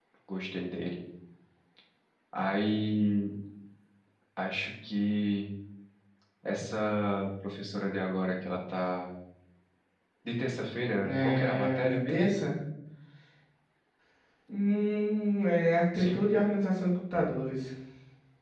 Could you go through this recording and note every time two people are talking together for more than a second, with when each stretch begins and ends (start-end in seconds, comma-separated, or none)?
11.0-12.3